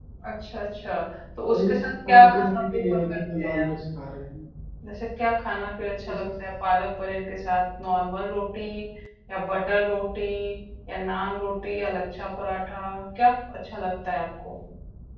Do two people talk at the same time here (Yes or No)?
Yes